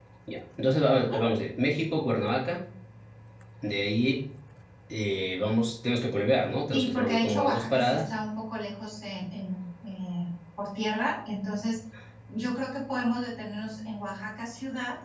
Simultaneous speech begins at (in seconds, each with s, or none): 6.7 s